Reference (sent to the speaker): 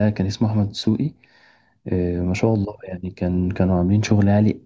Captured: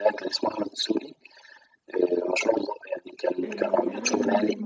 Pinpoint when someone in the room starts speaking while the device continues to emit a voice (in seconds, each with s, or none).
3.4 s